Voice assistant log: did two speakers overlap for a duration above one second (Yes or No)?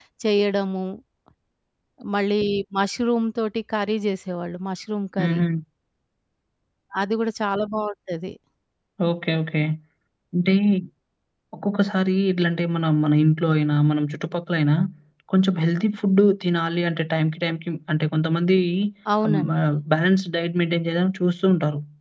No